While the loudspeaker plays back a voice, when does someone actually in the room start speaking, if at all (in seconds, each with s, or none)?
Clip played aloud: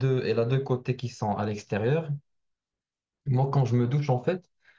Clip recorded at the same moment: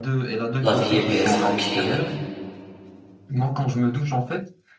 0.6 s